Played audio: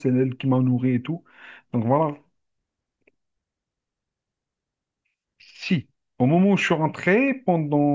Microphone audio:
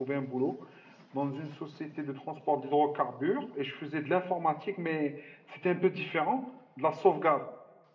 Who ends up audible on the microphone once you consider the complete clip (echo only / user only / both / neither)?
user only